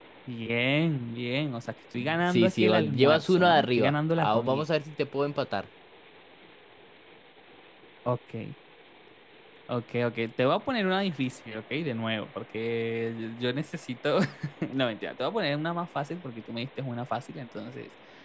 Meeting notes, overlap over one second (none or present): present